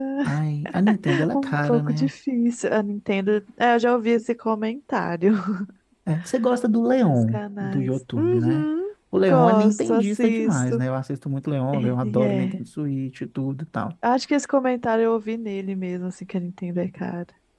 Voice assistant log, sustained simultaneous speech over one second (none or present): present